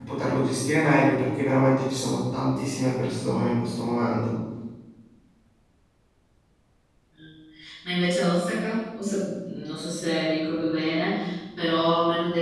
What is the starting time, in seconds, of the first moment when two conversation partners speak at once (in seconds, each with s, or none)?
none